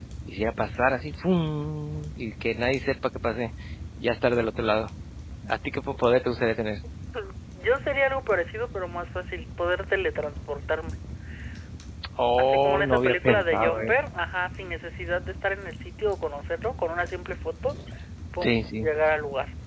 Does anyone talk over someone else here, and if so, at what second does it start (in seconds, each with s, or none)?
12.4 s